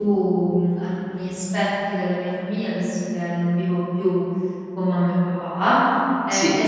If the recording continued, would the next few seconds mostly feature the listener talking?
No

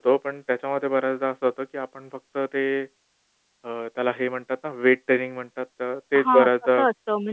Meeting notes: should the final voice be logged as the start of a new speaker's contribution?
Yes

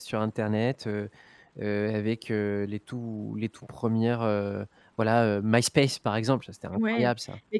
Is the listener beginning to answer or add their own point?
Yes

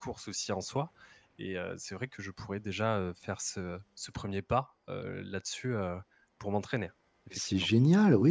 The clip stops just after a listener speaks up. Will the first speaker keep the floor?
No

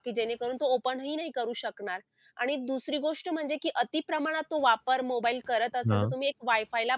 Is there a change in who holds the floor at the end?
No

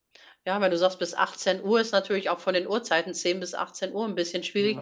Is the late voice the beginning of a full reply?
No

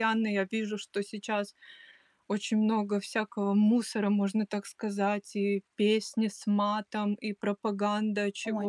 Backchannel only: No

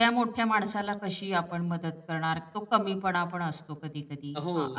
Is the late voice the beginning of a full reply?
Yes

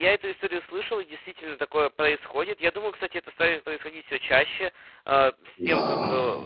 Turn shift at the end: No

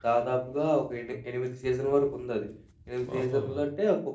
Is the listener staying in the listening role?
Yes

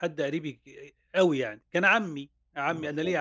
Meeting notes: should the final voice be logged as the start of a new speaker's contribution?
No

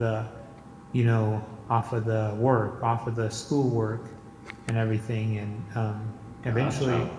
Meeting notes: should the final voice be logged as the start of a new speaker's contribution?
No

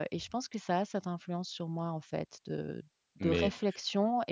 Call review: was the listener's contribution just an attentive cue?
Yes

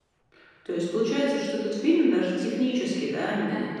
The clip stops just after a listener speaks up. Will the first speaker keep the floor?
Yes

